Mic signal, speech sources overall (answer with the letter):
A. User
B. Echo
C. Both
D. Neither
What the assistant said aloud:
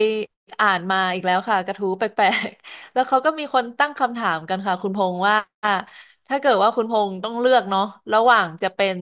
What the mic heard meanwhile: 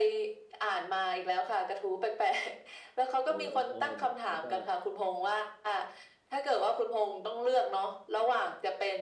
C